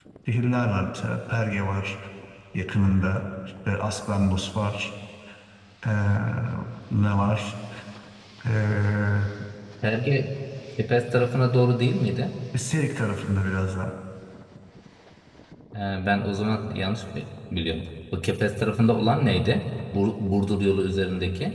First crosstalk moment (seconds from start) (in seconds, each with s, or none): none